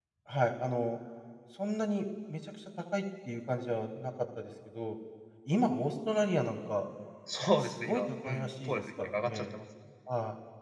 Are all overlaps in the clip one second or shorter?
No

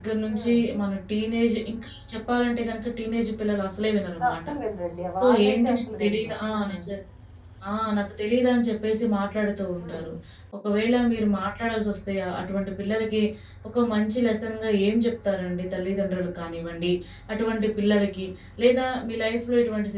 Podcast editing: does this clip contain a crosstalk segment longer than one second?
Yes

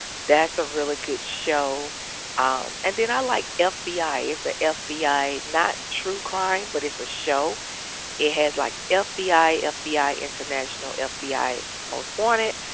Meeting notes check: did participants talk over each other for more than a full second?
No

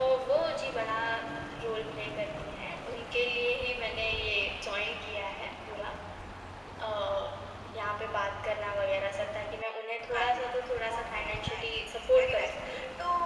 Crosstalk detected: Yes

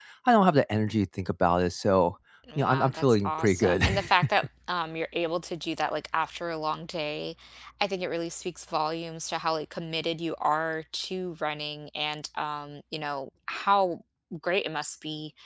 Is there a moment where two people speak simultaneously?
Yes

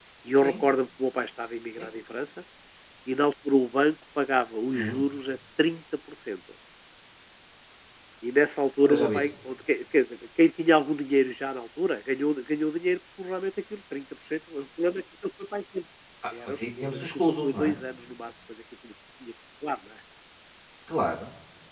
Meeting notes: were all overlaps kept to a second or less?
No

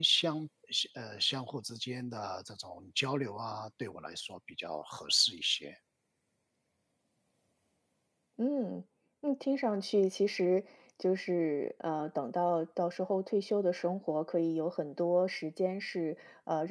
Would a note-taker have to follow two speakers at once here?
No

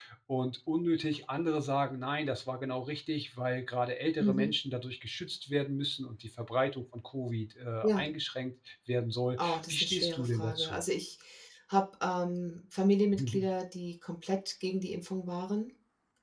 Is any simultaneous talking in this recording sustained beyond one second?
Yes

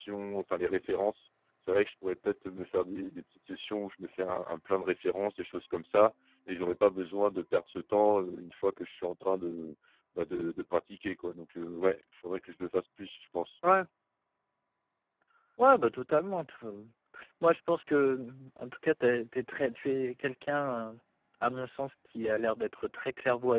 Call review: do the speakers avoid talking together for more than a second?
Yes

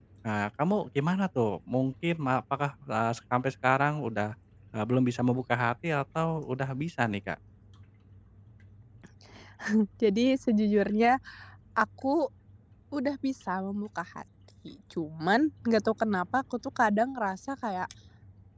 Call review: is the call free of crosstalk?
Yes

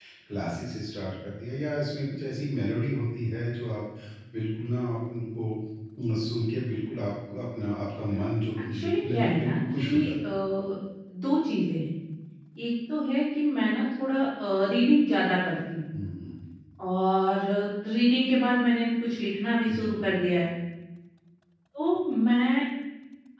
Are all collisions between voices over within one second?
No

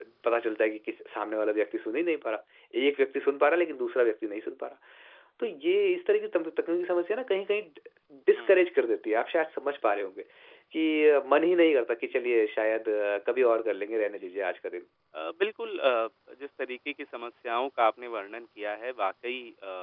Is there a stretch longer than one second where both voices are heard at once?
No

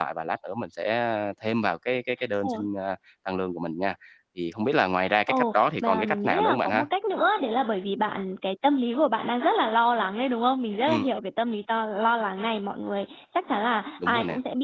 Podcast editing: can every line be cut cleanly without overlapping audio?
No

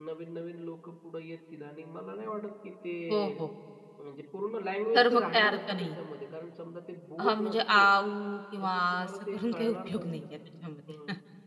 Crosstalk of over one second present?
Yes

